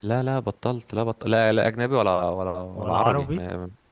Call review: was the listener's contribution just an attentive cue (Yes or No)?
Yes